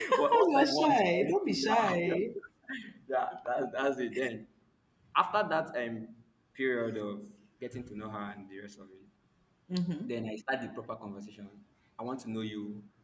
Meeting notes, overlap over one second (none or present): present